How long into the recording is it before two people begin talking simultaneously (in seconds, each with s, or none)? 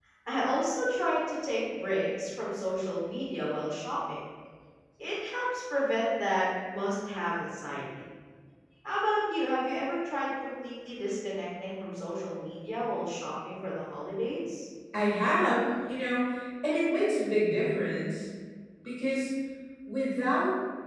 none